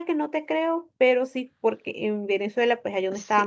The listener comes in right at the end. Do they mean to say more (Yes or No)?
No